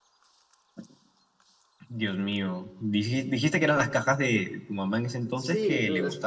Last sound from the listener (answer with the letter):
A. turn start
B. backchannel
A